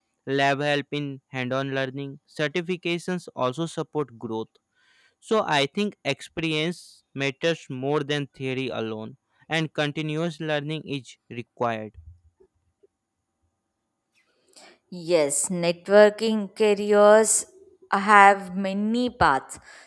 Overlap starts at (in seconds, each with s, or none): none